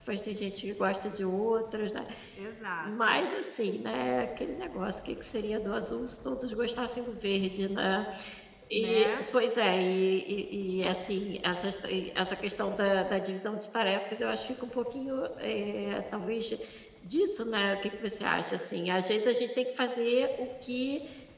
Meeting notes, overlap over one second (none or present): none